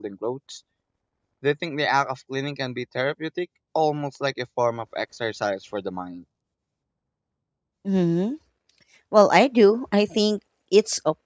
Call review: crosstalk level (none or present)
none